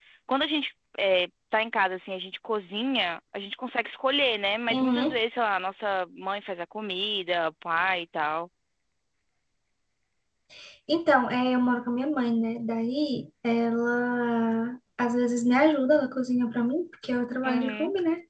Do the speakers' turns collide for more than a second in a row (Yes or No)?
No